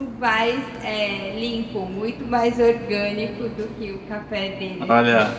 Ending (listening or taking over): taking over